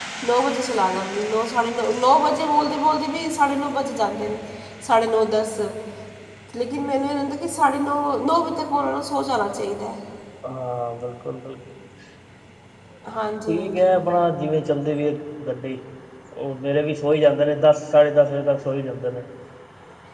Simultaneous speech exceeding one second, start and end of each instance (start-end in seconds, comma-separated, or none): none